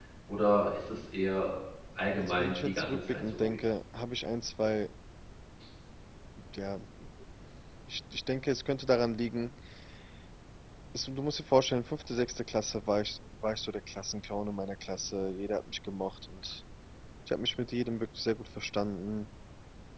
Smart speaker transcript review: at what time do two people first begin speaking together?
2.2 s

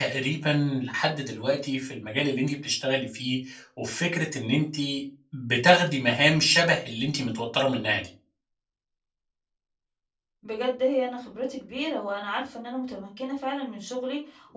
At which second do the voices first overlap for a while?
none

